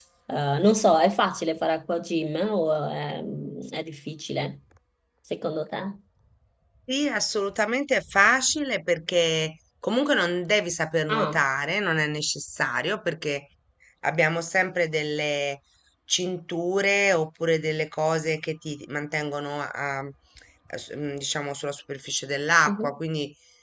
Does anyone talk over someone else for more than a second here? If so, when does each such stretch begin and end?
none

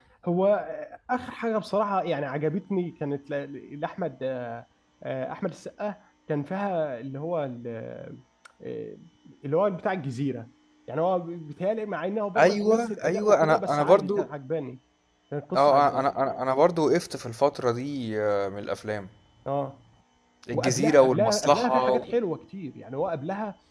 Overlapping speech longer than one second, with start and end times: 12.4-14.3, 20.5-22.0

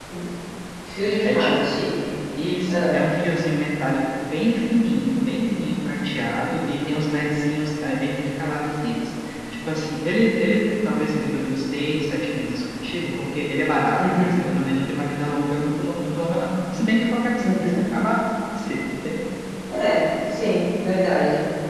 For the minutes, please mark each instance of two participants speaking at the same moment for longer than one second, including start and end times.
none

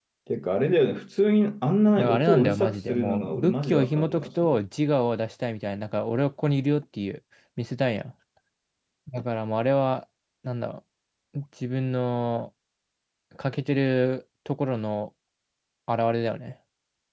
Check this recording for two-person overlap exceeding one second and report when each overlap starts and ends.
2.0-4.6

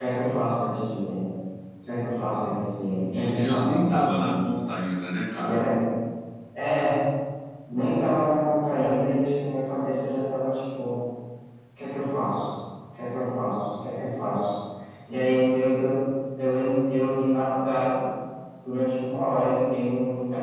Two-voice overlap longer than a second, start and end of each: 3.1-4.3

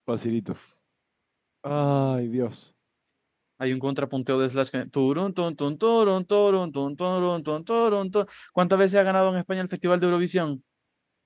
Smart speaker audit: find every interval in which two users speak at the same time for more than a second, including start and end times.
none

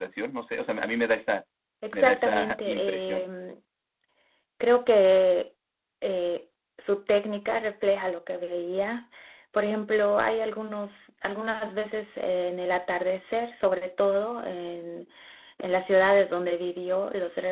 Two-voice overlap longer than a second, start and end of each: 1.9-3.3

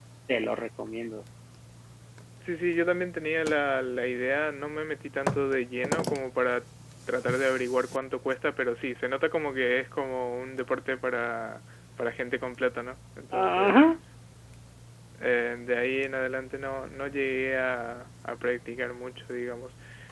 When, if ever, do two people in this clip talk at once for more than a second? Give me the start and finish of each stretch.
none

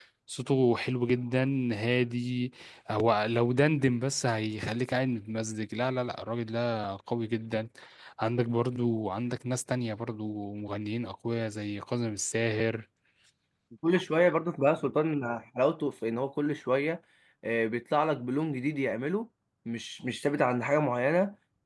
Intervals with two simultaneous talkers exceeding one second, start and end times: none

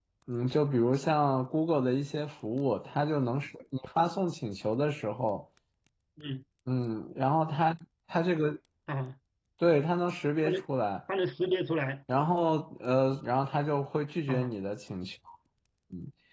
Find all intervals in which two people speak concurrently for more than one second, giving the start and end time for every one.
none

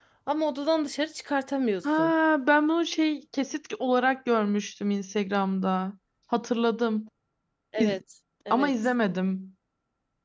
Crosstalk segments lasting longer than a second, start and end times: none

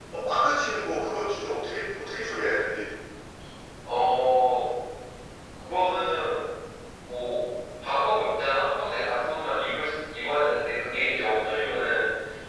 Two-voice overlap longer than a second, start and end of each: none

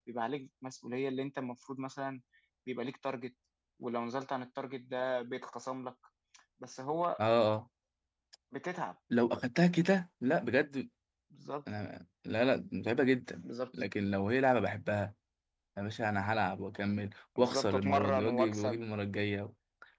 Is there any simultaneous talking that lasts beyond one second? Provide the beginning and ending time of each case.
17.4-18.8

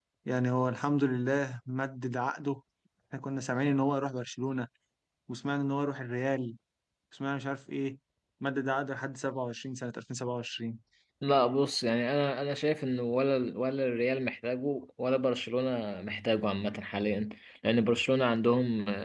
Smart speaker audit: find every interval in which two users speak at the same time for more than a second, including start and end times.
none

